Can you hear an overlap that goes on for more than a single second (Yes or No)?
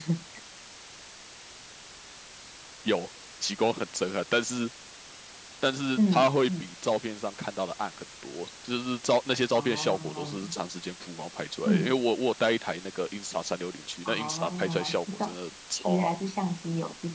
Yes